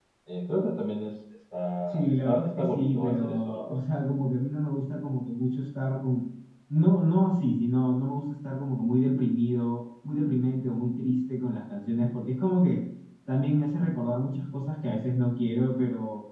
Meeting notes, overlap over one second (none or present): present